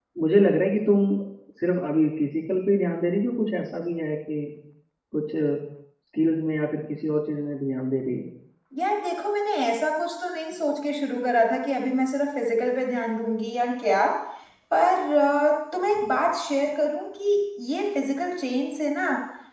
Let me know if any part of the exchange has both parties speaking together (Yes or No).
No